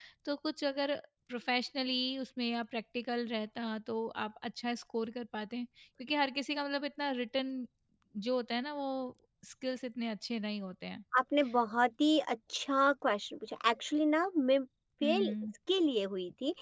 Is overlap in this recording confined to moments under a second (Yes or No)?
Yes